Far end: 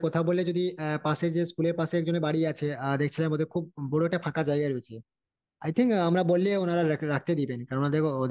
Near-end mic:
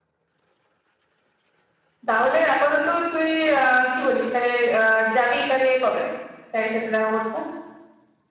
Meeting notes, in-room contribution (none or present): present